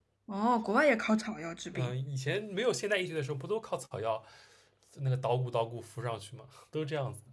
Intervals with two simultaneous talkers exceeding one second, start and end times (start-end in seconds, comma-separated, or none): none